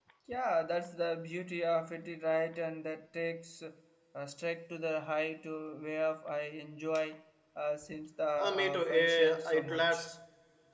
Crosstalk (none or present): present